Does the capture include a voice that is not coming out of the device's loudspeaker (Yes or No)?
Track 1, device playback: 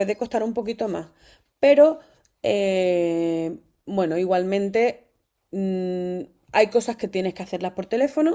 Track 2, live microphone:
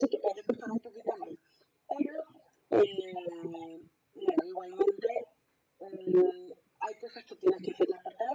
No